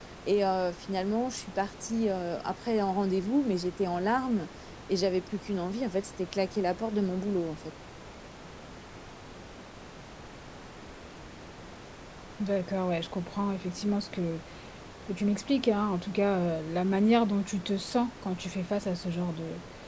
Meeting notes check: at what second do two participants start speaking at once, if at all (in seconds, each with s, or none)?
none